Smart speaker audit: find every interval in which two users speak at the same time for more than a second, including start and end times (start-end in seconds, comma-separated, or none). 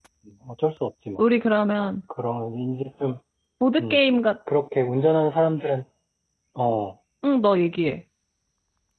none